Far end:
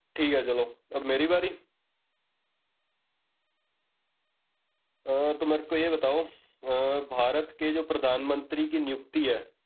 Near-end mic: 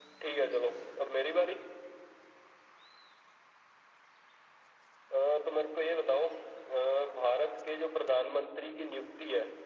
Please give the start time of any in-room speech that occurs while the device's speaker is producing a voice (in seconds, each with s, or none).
none